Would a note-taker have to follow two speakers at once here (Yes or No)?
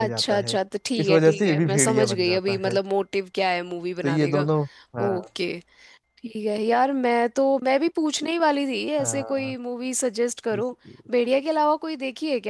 Yes